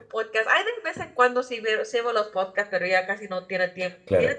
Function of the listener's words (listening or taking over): taking over